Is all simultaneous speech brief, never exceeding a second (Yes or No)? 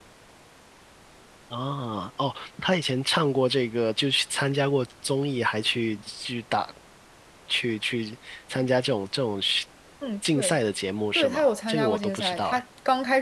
No